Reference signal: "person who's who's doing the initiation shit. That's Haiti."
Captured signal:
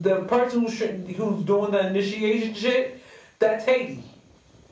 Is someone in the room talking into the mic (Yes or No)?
No